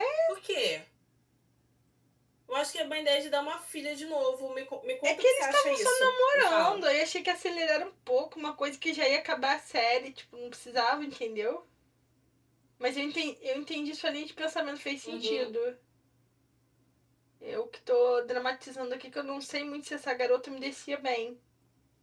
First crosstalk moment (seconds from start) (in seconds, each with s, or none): 5.0 s